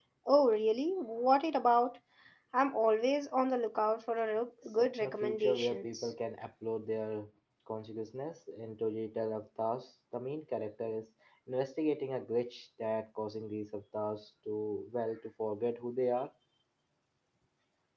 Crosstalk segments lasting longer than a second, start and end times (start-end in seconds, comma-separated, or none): 4.7-6.1